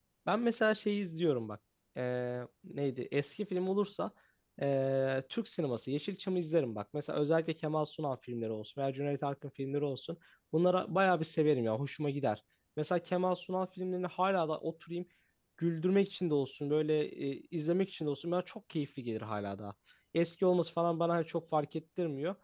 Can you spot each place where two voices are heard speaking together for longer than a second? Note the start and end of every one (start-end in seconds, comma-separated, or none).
none